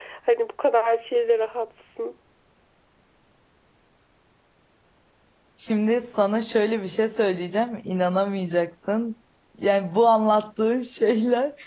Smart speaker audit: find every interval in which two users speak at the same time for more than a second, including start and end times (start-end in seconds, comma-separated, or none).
none